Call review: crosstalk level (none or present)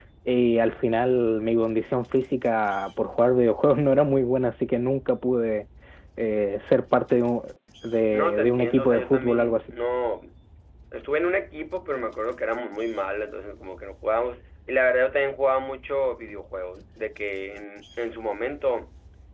present